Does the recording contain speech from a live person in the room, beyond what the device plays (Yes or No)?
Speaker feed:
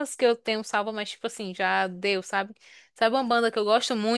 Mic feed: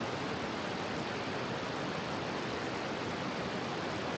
No